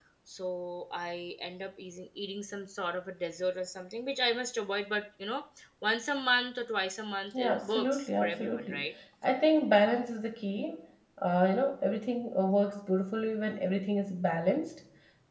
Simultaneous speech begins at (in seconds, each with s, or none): 7.3 s